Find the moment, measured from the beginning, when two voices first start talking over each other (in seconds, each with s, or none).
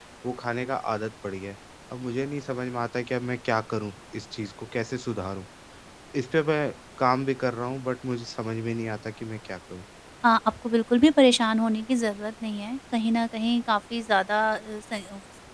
none